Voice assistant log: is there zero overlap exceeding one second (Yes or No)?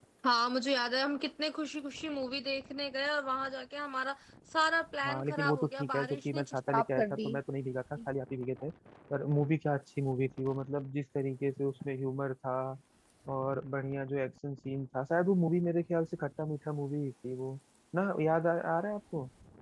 No